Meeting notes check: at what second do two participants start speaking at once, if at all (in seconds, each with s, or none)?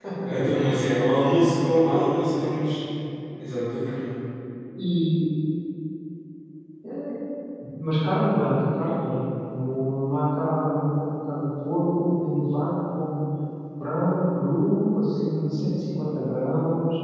none